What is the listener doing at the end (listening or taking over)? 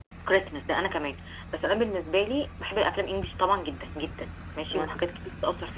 listening